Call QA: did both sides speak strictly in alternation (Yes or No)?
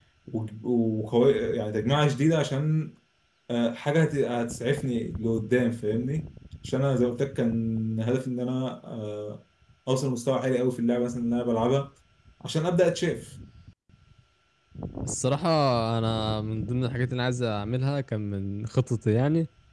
Yes